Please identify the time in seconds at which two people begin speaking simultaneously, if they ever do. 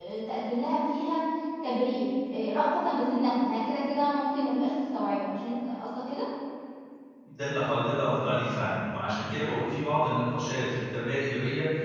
none

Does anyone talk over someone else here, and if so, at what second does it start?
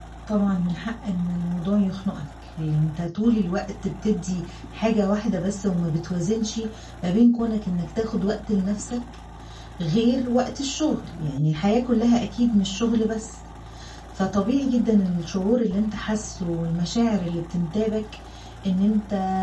none

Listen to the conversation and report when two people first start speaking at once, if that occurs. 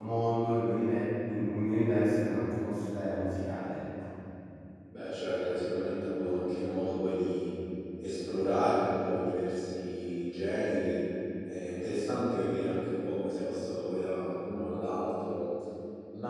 none

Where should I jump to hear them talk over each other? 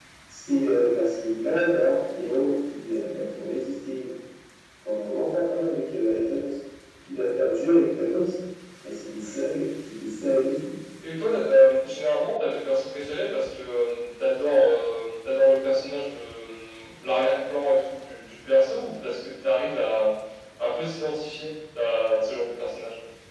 none

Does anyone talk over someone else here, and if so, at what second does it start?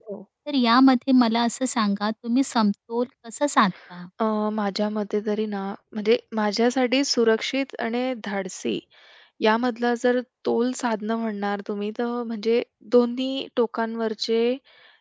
none

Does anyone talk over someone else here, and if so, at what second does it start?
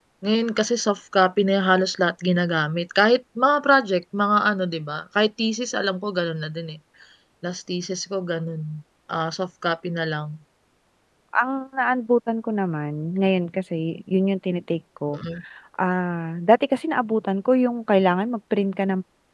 none

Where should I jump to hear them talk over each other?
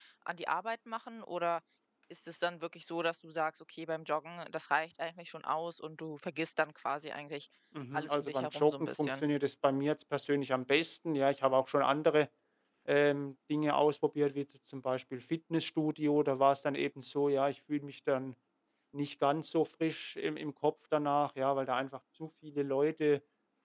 7.9 s

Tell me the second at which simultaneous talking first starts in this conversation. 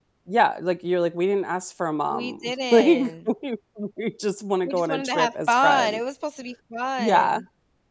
2.1 s

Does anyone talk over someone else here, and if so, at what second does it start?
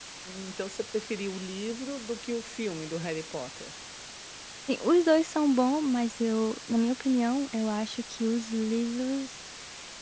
none

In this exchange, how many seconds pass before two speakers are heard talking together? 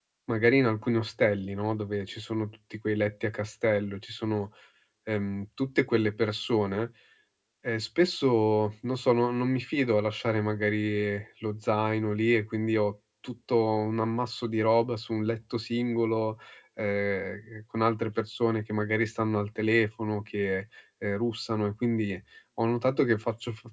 none

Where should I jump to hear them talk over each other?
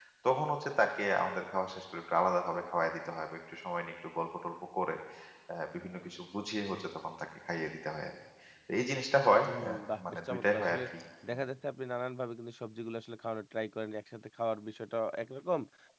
9.5 s

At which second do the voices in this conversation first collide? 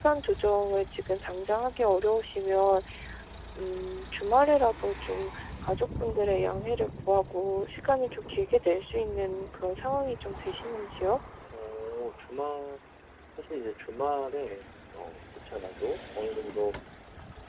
none

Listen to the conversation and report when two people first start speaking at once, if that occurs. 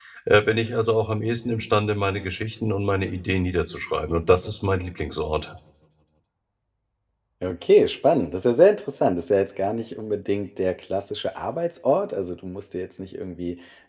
none

